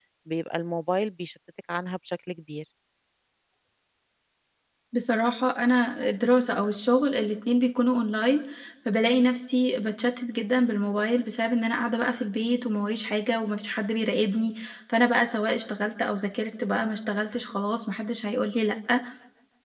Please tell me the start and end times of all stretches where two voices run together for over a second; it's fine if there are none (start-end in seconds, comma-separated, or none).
none